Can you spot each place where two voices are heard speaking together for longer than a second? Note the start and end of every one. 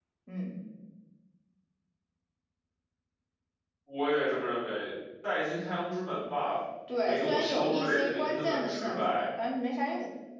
7.0-9.3

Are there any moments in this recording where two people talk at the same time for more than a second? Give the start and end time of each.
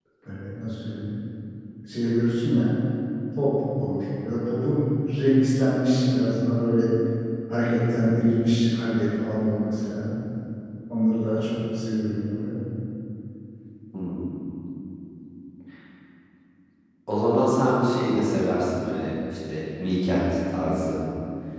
none

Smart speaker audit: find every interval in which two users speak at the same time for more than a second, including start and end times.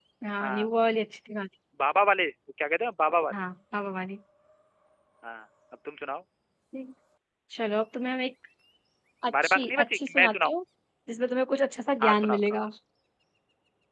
9.3-10.5

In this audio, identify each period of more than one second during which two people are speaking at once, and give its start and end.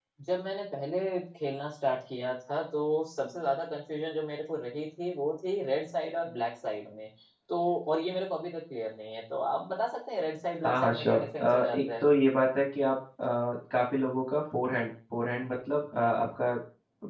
10.6-12.0

